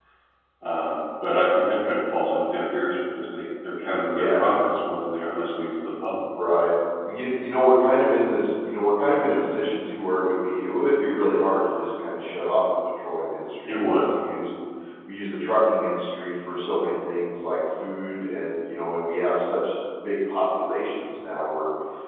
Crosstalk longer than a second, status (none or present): none